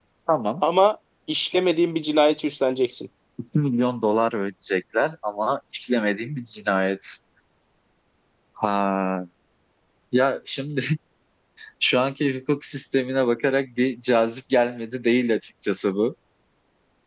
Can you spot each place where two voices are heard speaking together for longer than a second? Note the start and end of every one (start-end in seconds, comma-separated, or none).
none